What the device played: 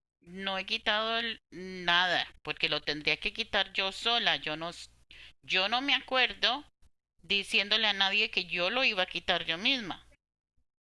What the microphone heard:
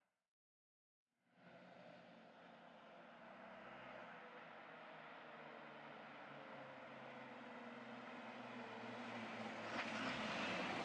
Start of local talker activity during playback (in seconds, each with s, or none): none